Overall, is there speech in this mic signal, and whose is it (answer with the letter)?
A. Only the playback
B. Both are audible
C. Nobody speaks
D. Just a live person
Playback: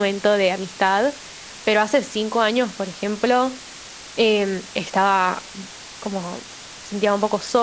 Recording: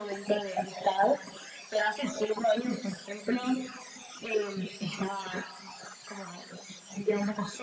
A